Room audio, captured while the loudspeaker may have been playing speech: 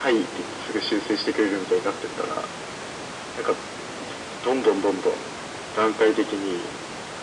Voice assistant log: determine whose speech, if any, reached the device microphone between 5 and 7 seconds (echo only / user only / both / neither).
echo only